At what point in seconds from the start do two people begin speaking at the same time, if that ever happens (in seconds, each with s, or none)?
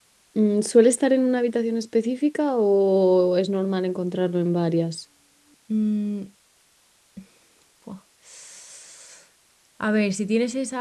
none